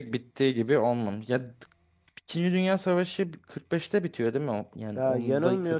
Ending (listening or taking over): taking over